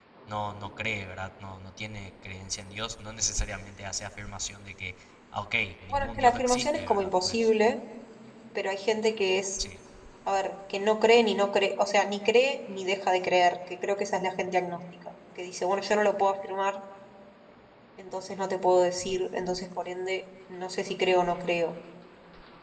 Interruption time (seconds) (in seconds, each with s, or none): 5.9 s